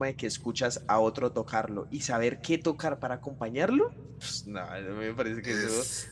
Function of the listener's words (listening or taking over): listening